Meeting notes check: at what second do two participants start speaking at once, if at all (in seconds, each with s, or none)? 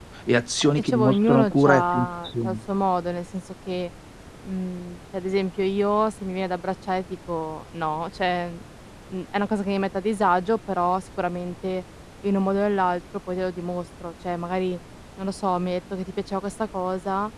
0.6 s